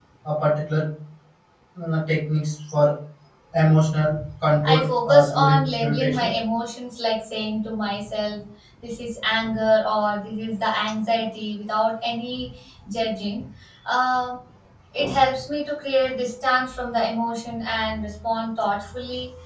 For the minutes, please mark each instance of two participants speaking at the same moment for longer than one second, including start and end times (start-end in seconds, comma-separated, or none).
4.6-6.3